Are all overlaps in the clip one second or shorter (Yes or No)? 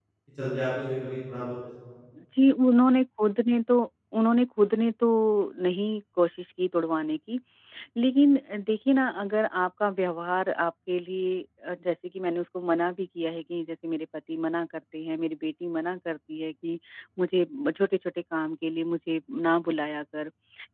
Yes